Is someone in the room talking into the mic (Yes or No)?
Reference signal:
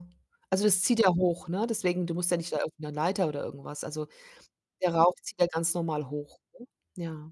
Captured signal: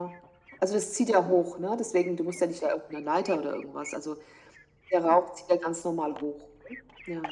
No